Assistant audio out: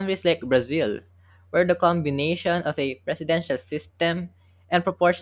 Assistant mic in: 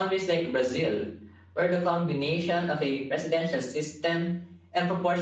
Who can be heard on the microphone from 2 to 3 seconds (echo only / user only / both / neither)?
echo only